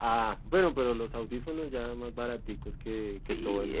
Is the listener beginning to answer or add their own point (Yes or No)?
Yes